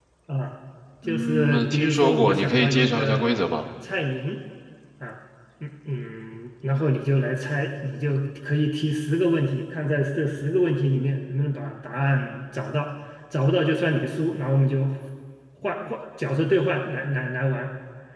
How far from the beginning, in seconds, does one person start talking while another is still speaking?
1 s

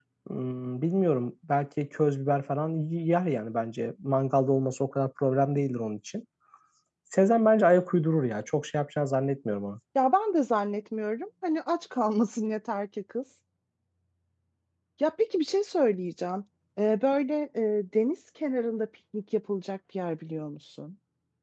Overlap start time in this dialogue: none

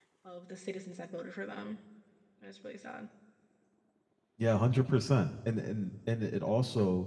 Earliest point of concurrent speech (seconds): none

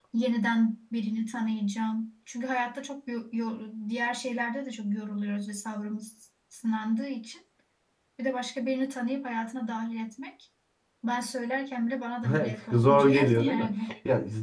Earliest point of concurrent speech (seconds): 12 s

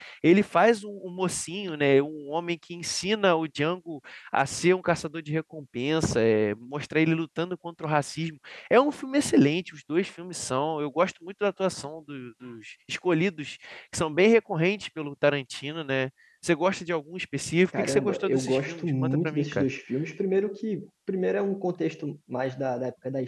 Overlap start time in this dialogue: 18 s

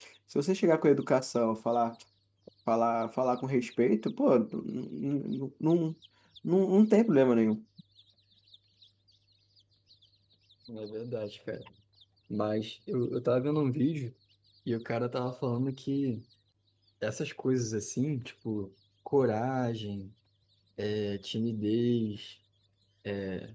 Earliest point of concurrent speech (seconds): none

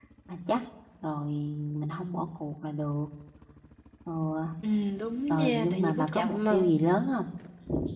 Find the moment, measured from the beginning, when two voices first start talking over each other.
5 s

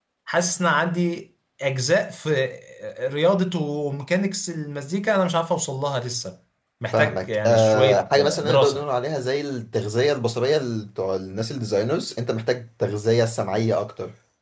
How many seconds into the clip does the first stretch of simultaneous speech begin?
7 s

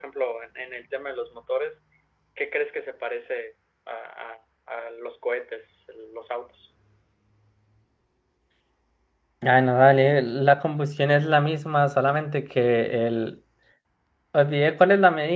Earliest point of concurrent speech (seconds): none

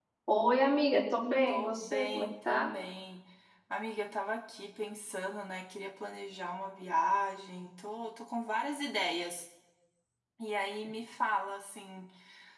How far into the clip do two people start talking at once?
1 s

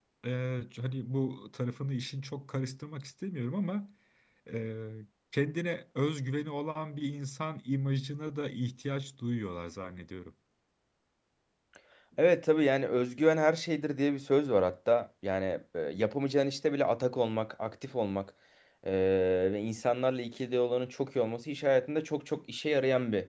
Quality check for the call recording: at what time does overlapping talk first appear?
none

